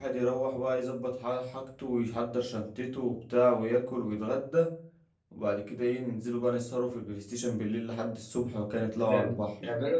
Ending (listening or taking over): taking over